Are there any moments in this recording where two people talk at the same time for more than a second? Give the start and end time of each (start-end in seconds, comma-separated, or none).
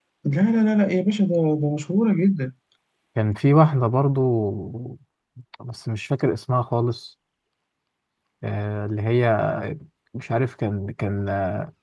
none